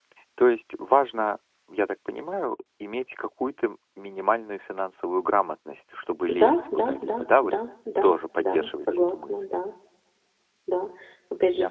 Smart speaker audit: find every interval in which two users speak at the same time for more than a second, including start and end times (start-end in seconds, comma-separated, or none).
6.3-7.5, 8.0-9.4